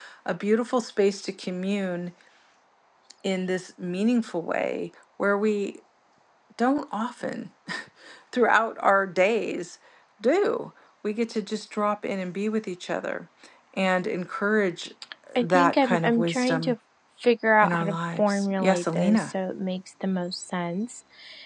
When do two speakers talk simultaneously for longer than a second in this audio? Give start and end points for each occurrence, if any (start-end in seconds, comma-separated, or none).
15.4-16.8, 17.6-19.3